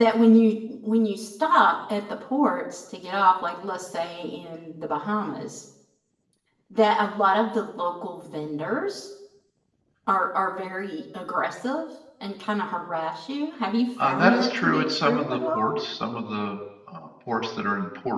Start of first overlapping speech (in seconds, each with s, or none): 14.0 s